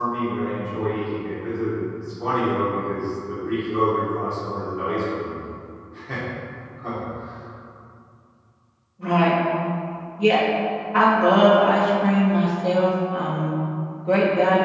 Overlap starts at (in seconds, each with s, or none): none